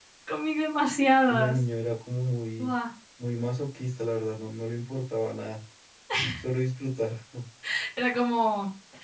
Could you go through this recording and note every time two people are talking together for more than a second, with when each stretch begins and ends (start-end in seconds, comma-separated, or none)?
none